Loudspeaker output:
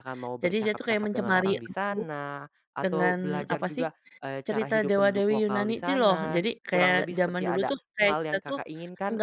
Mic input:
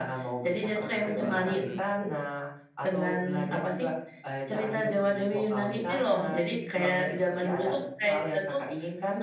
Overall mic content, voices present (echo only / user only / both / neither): both